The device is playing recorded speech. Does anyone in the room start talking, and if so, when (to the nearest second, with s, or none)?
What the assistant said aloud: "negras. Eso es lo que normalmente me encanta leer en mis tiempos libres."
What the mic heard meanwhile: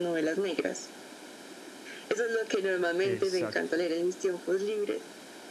3 s